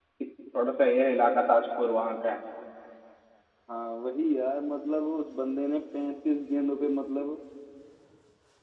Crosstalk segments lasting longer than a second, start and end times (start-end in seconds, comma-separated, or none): none